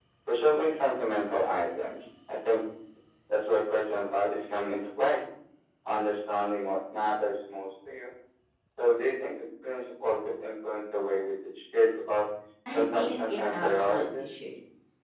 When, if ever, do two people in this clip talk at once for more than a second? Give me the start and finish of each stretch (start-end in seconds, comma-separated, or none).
12.7-14.2